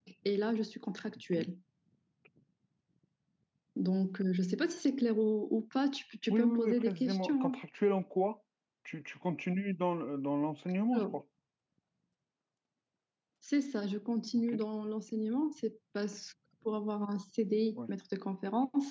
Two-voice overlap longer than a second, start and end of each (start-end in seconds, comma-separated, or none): 6.3-7.6